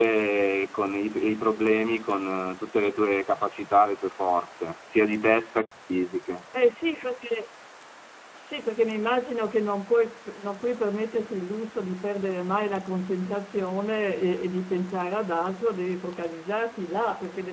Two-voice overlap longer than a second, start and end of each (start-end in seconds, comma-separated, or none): none